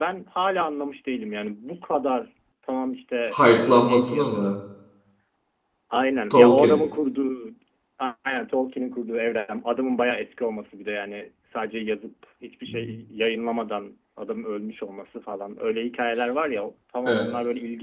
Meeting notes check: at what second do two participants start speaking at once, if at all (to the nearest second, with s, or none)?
3 s